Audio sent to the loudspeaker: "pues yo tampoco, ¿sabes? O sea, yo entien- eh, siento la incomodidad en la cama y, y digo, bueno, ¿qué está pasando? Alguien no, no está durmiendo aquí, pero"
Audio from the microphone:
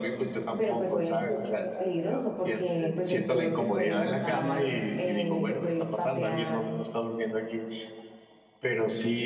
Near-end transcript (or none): Pero pues obviamente eso es muy peligroso porque pues el toro te puede botar, eh, te puede patear,